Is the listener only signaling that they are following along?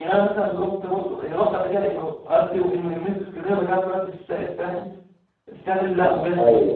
Yes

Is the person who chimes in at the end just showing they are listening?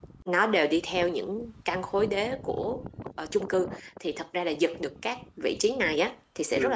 Yes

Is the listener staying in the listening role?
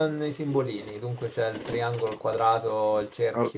No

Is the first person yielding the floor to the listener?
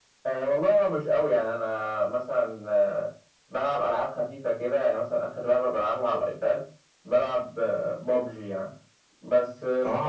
No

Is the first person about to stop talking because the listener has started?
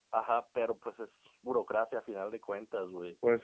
No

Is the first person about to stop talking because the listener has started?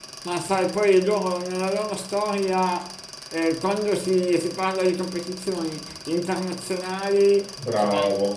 No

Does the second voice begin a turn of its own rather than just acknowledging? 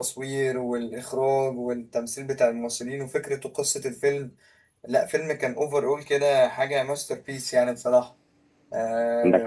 Yes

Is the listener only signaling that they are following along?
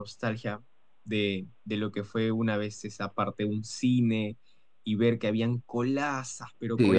No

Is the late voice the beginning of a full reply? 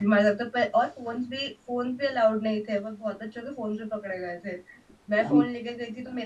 No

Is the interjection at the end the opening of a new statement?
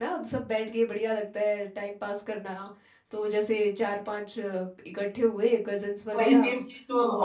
Yes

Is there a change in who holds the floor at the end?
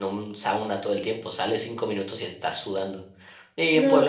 No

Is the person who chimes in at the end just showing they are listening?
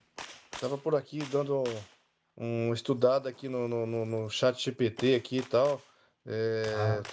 Yes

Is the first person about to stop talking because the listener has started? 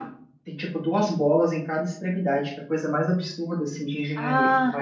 Yes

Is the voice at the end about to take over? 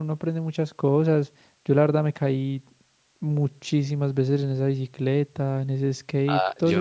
Yes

